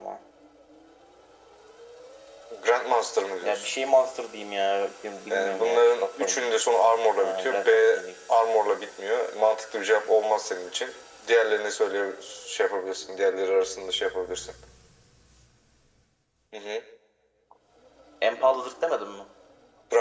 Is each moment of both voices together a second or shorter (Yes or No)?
No